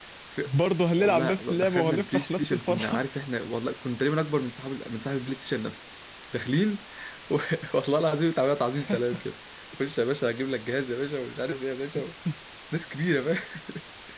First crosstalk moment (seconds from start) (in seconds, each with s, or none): 1.0 s